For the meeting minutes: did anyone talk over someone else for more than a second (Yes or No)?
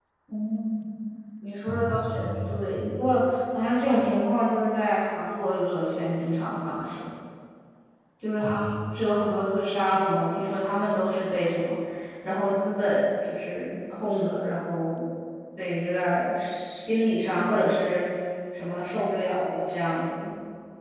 Yes